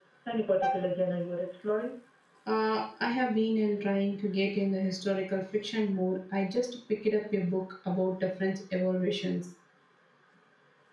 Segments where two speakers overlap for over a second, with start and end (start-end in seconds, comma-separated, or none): none